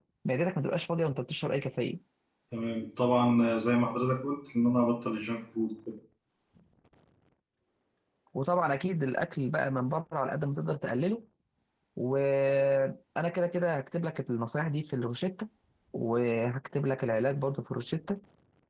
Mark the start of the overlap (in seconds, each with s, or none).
none